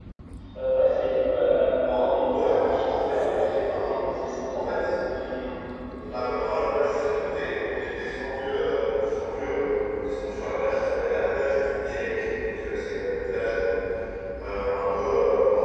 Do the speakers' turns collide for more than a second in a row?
Yes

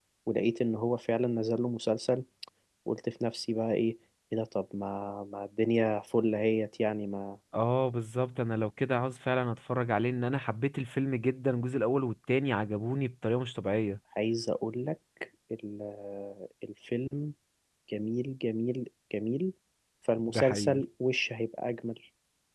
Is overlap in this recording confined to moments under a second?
Yes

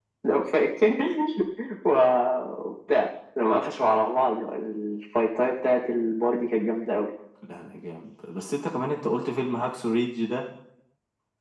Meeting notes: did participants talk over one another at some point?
No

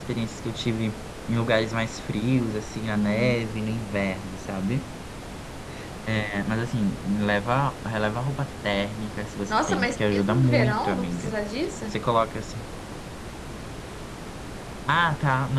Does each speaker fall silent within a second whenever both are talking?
No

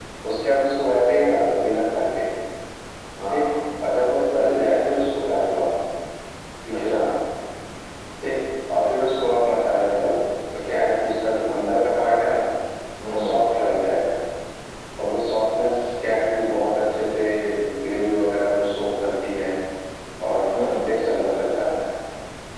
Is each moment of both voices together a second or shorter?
Yes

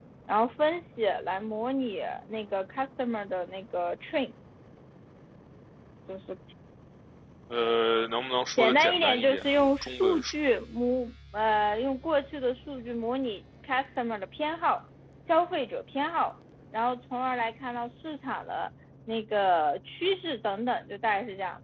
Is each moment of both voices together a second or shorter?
No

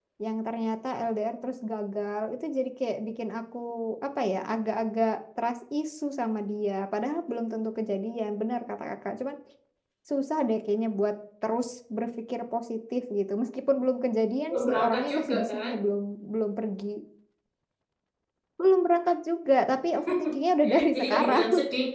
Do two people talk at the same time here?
Yes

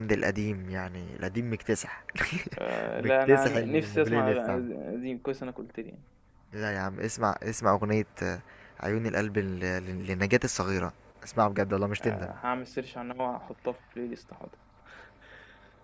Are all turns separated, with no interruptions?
No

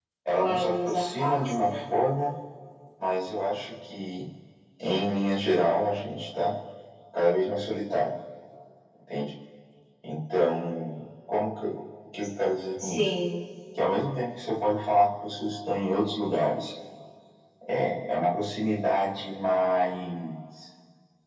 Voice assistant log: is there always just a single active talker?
No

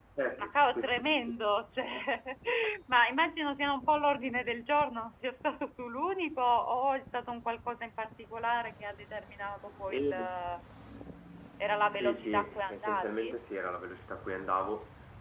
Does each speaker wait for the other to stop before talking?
No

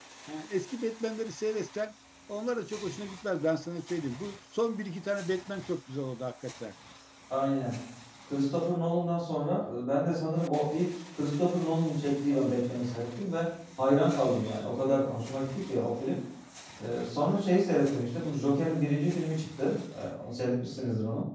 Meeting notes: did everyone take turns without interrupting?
Yes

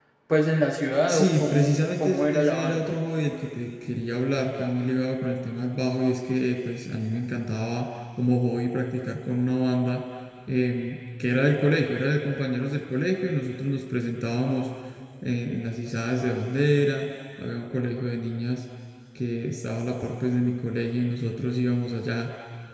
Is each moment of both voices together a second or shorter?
No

